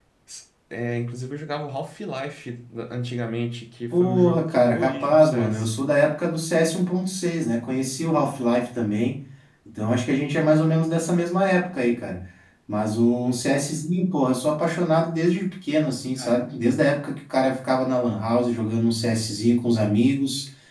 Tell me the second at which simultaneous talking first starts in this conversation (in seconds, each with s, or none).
3.9 s